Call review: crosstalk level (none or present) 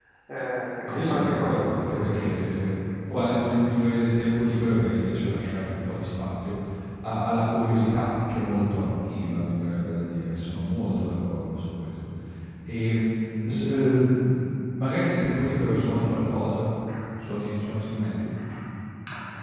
present